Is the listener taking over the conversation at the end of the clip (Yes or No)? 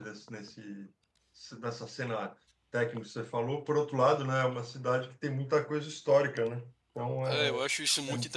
Yes